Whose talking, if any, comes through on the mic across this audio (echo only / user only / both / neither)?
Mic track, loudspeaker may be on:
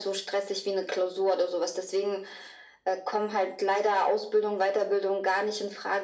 echo only